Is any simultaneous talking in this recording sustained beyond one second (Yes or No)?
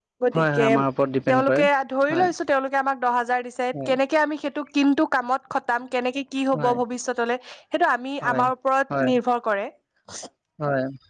No